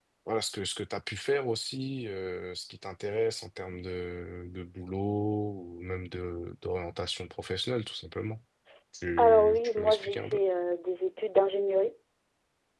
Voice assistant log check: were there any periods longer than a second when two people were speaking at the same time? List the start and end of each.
9.2-10.4

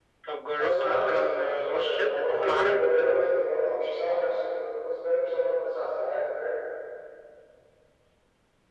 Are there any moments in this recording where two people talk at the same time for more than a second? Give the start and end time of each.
0.6-2.8

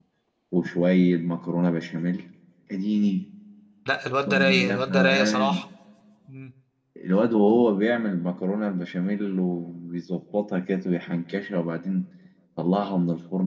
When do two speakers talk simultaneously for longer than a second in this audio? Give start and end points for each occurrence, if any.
4.3-5.6

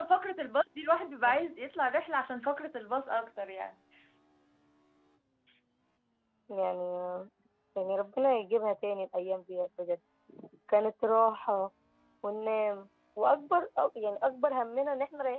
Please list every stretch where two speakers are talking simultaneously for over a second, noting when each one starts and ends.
none

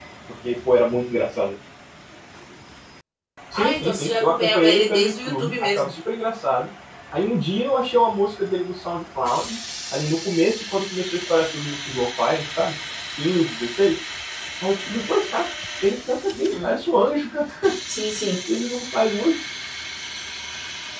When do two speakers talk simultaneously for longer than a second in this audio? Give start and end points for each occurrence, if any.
3.5-5.9

